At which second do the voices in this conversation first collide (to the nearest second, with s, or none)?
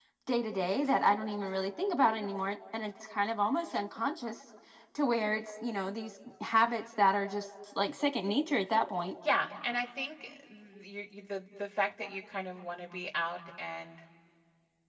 none